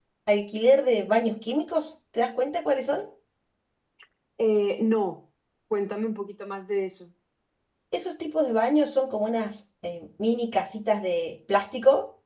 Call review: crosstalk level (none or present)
none